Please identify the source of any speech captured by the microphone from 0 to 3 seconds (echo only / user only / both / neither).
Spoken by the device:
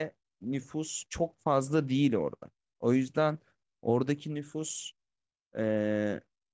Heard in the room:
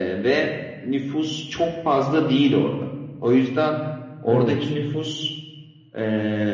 echo only